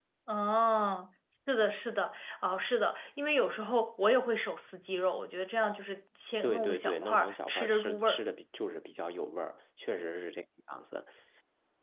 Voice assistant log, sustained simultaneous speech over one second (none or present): present